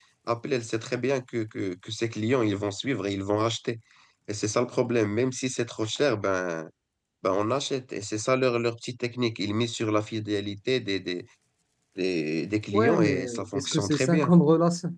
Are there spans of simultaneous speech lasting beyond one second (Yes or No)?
Yes